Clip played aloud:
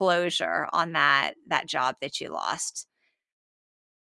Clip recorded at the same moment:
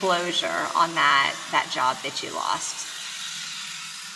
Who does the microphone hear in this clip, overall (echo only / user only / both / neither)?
echo only